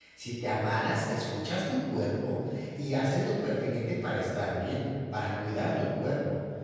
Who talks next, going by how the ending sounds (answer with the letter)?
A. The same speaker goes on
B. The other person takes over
A